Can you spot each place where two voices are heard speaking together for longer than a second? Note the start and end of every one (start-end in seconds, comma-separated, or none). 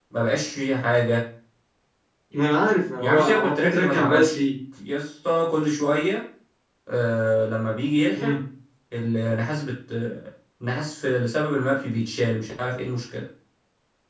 3.0-4.4